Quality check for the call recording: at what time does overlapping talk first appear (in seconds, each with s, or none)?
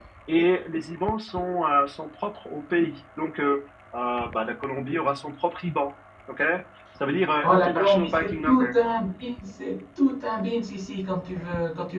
7.4 s